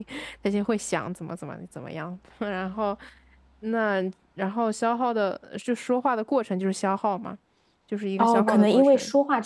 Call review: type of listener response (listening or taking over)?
taking over